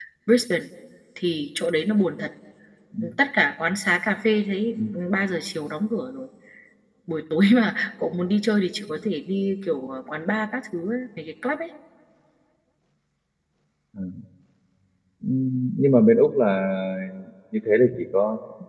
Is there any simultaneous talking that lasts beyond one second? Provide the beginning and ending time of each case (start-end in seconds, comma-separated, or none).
none